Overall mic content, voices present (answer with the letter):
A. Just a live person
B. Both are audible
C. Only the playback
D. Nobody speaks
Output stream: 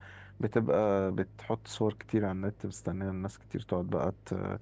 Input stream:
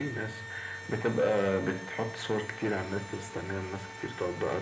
C